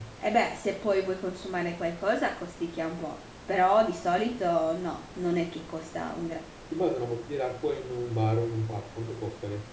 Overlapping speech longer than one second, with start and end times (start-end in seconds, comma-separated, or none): none